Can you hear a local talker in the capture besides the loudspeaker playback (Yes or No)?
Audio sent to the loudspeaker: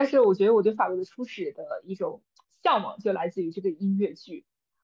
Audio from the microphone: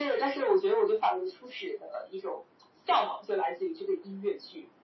No